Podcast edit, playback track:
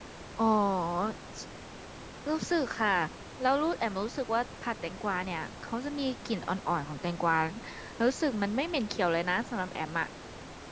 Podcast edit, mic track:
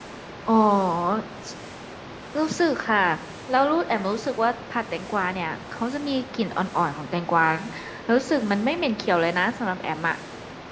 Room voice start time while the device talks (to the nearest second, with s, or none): none